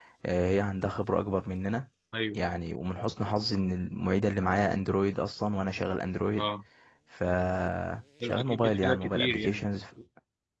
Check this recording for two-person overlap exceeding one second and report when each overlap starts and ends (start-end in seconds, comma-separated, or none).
8.2-9.7